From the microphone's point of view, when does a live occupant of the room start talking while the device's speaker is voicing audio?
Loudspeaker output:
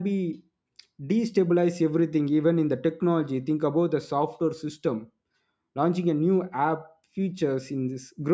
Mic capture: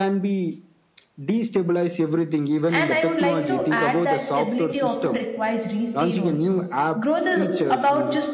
2.7 s

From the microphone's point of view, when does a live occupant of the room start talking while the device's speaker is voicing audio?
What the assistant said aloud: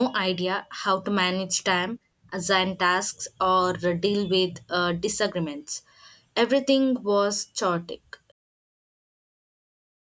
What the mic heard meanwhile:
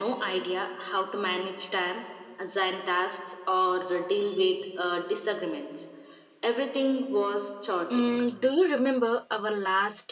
7.9 s

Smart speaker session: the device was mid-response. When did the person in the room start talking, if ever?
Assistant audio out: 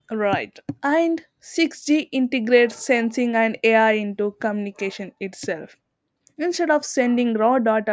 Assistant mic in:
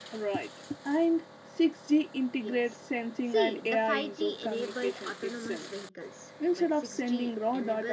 2.4 s

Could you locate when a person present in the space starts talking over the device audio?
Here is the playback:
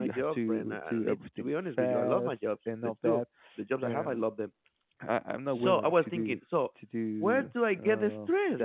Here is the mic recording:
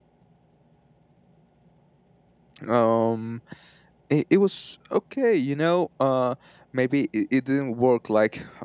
2.7 s

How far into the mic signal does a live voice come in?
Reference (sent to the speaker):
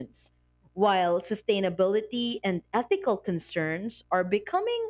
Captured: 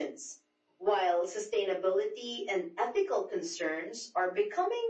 none

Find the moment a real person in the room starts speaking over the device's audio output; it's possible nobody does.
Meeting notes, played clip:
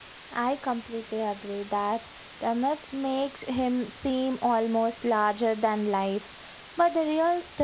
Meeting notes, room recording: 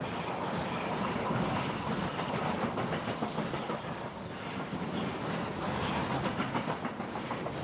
none

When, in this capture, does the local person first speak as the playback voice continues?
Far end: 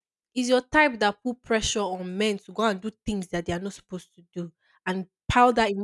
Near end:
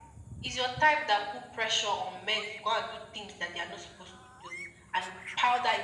none

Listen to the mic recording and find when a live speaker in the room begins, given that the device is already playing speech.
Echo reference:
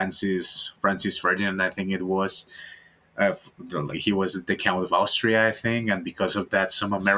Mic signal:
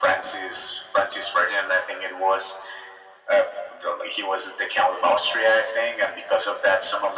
none

